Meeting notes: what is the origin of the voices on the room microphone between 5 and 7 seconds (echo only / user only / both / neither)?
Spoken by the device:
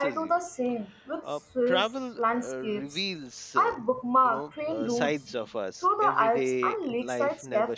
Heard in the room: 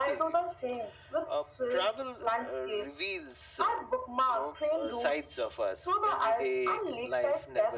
echo only